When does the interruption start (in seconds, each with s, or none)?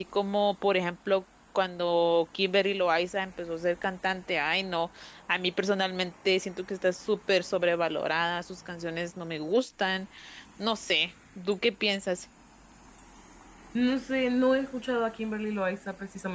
none